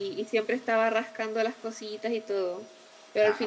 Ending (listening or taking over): listening